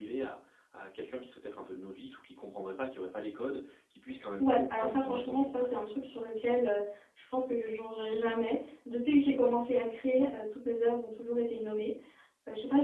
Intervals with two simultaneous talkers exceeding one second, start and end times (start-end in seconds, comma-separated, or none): 4.4-5.8